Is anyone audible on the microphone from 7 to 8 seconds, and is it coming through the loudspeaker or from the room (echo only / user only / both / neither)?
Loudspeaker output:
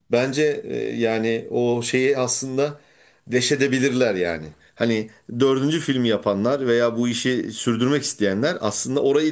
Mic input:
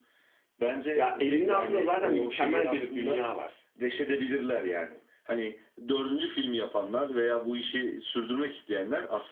echo only